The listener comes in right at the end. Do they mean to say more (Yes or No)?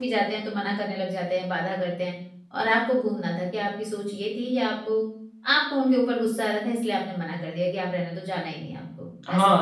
Yes